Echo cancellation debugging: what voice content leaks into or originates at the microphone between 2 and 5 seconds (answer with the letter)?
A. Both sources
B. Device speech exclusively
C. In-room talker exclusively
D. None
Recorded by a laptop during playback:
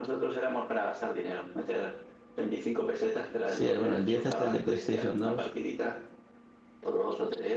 A